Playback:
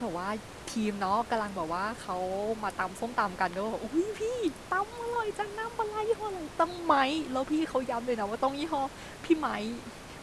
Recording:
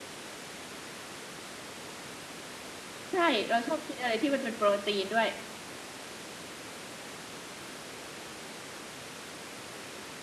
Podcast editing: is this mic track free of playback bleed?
Yes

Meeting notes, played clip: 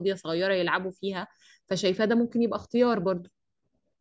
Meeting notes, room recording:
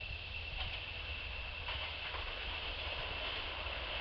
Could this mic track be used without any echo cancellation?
Yes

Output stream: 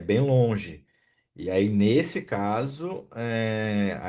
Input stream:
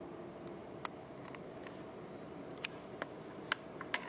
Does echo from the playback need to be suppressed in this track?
No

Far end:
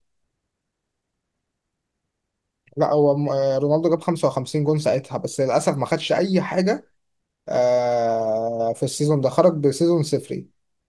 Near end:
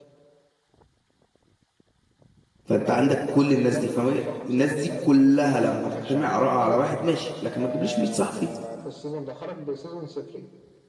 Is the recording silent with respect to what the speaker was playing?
No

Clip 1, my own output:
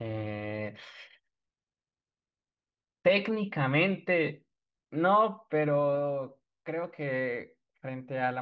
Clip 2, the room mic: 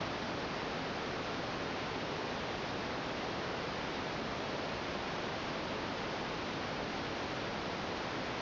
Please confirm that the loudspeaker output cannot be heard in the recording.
Yes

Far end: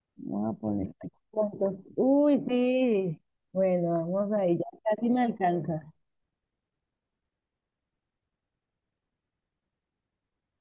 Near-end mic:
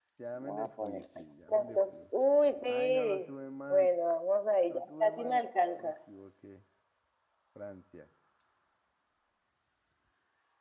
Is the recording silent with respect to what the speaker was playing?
No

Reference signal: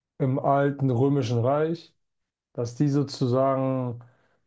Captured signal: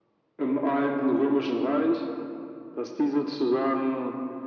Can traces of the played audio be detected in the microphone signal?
Yes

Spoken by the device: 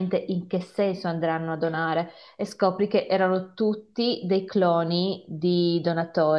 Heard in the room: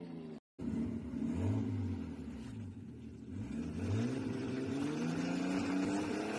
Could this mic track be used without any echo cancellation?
Yes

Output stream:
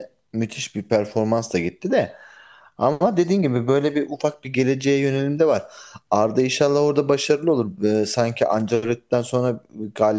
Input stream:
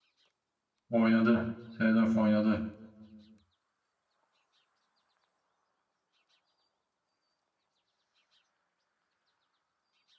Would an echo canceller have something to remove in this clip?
No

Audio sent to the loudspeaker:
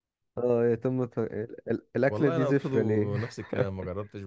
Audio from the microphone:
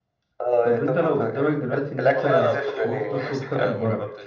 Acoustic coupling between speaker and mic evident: Yes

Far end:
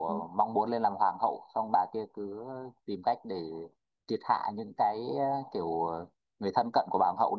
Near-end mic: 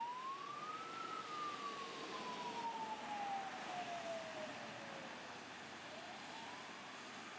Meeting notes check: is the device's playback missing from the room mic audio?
Yes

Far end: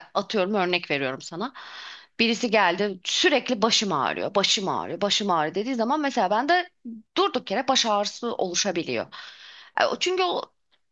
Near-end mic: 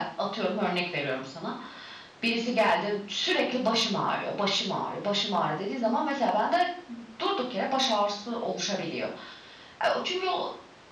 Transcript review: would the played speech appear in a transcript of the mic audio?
Yes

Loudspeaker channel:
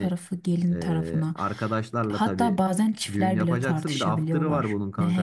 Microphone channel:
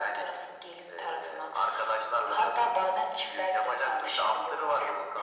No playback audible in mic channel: No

